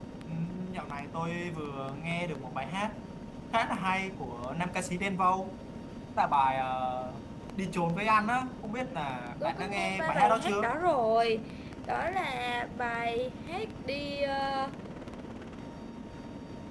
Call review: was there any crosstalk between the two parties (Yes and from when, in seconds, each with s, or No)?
Yes, from 9.4 s